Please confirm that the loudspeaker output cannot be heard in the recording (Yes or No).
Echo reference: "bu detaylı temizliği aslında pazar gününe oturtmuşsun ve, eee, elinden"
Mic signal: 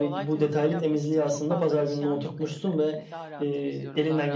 No